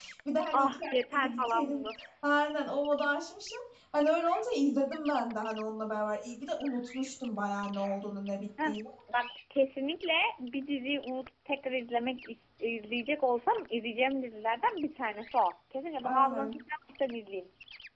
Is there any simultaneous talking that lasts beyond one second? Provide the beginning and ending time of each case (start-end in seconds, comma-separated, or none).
0.5-1.8